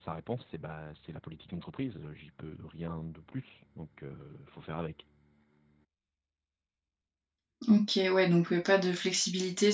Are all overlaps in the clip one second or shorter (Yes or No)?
Yes